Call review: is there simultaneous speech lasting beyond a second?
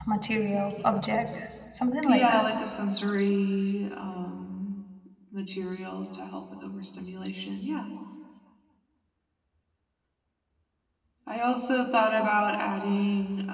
No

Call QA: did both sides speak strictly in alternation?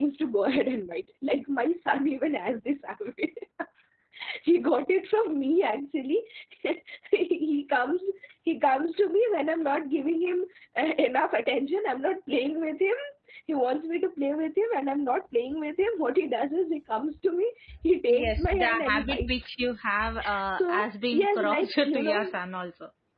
No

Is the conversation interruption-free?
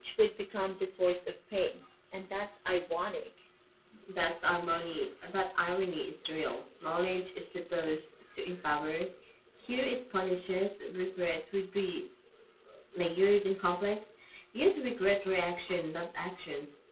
Yes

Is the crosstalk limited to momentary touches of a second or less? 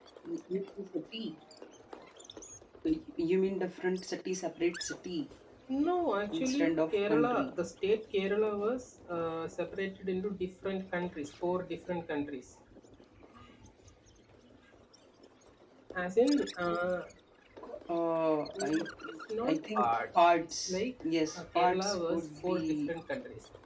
No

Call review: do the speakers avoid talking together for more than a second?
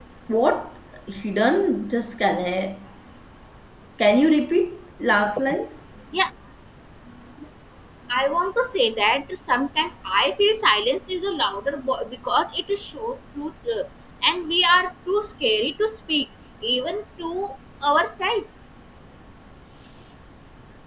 Yes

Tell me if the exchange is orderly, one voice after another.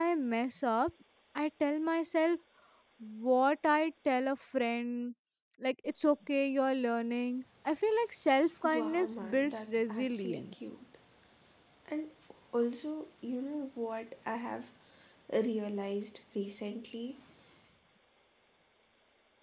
No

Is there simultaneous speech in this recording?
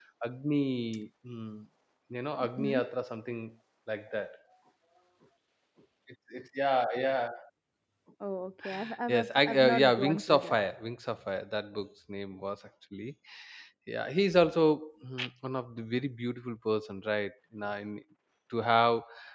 Yes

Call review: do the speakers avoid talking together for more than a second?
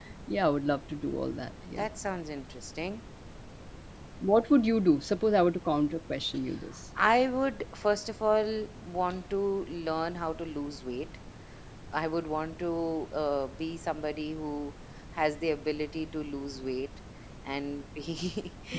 Yes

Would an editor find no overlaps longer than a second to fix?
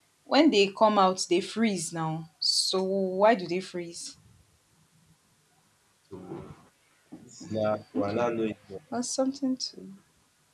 Yes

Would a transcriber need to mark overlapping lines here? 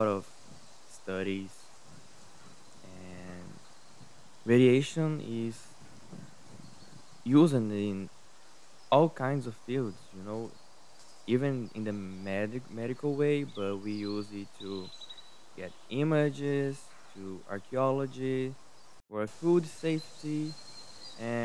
No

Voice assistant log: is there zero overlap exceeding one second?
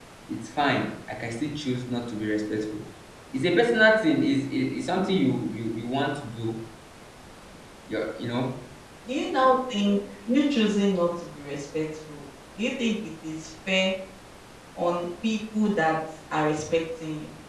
Yes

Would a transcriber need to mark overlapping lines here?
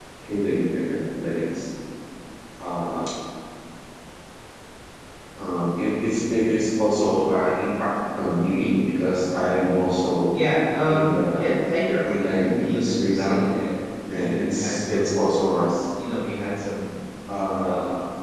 Yes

